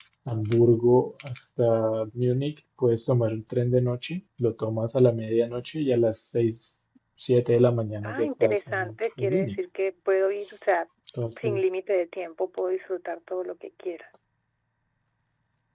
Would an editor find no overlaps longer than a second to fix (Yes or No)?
No